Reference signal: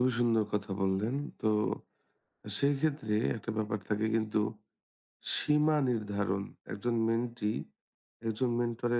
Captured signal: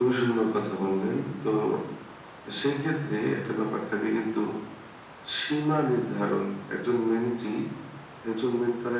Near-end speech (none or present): none